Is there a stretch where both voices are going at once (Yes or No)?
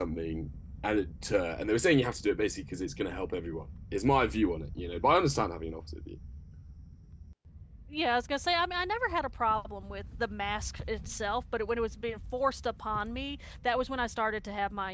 No